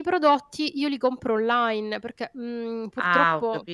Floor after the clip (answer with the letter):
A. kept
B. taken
B